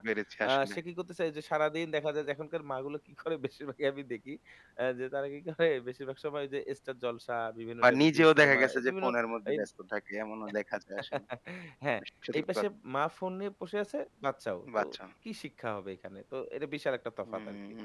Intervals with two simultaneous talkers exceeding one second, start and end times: 7.8-9.1

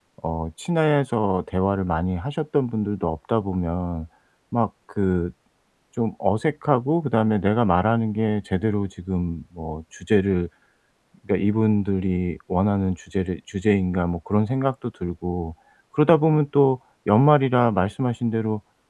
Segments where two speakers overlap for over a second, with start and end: none

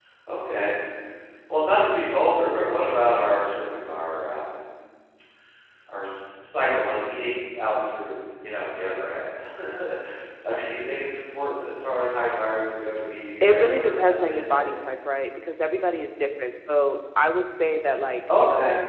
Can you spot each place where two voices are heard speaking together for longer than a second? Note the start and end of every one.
13.4-14.7

